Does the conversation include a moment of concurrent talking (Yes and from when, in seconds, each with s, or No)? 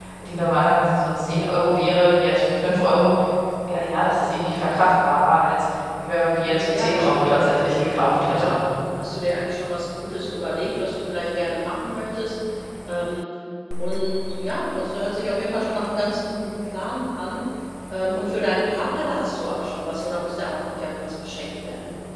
Yes, from 6.4 s